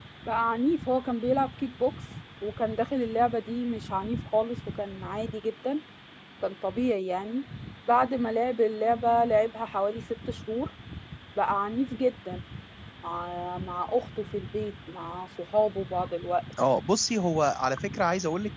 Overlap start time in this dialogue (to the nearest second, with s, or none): none